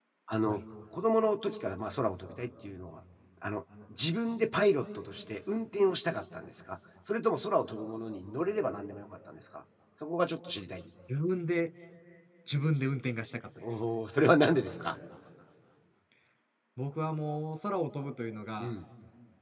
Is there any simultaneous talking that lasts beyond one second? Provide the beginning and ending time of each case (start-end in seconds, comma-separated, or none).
none